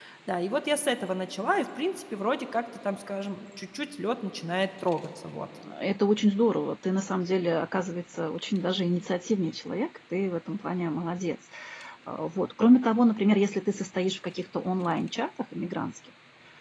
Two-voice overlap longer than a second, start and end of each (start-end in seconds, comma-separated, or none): none